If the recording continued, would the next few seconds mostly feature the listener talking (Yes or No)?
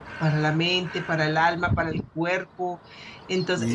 No